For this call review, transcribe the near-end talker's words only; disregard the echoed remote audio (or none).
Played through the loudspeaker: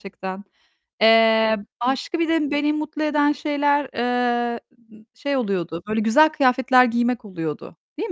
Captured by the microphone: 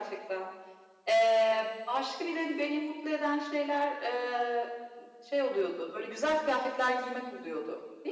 none